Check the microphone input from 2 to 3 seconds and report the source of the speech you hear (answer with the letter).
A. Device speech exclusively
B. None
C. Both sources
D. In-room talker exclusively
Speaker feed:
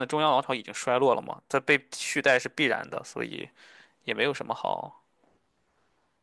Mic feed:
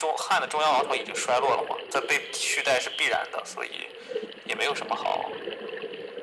A